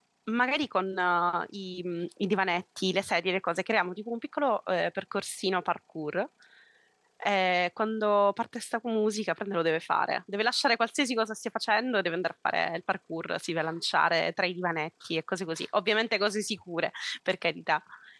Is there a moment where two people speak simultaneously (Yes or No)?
No